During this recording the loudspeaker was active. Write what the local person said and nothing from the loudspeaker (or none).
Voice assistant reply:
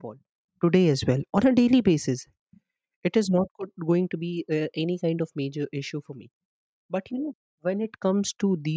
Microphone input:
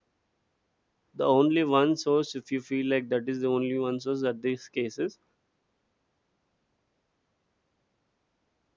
The only one source, if you feel like that is the only one source at these cases,